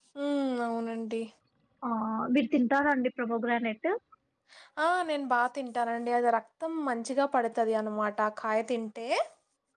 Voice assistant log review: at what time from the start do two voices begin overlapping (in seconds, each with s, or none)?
none